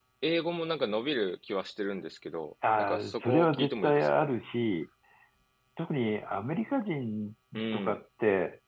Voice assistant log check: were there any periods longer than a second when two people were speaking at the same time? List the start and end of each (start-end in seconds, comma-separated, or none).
2.8-4.3